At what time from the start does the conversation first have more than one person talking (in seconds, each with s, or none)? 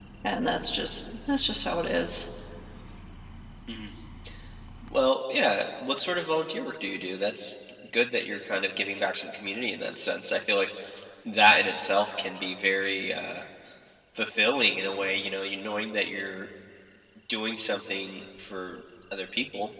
none